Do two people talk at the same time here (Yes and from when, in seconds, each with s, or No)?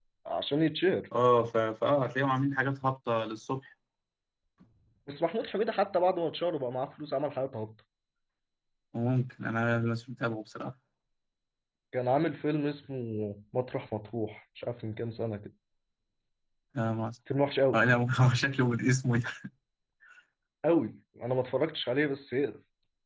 No